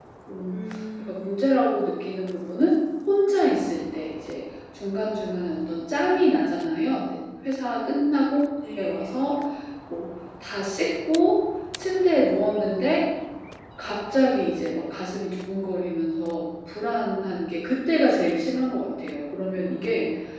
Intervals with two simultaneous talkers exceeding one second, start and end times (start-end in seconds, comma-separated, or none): none